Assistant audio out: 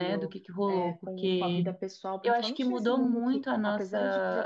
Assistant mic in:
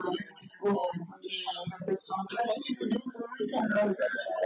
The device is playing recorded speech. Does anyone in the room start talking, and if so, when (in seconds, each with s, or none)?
none